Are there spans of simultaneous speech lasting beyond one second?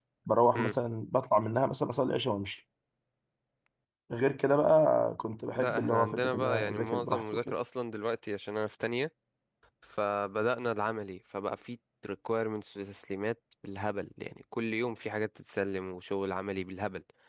Yes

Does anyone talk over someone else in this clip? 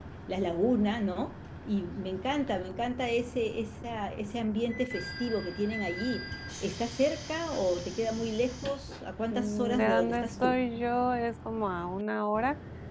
Yes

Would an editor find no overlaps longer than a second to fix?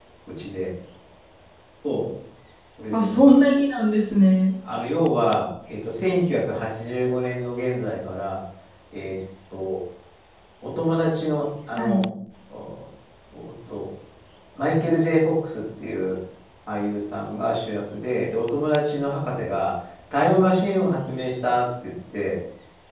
Yes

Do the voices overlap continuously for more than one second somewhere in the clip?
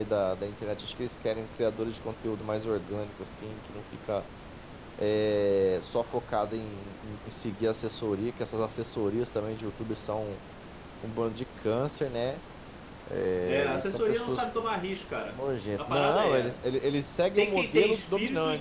Yes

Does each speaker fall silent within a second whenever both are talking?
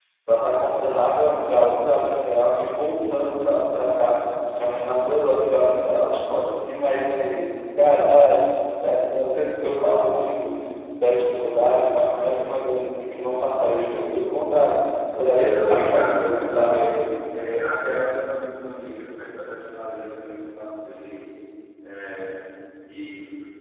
No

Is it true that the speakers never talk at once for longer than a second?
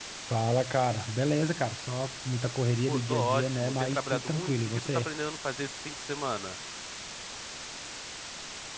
No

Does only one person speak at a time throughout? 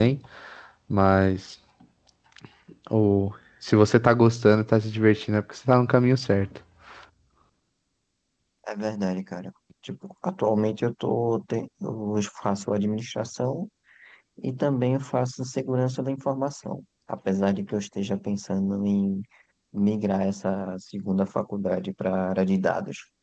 Yes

